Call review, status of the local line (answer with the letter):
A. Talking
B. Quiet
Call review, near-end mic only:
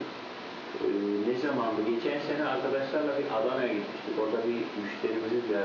B